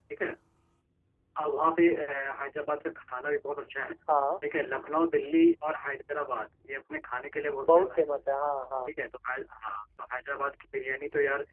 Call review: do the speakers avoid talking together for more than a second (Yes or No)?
Yes